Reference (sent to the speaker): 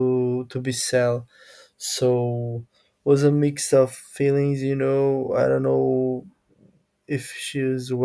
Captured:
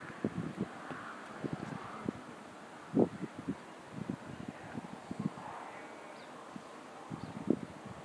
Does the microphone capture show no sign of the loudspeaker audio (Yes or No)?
Yes